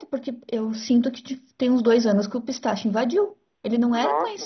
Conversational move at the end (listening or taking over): taking over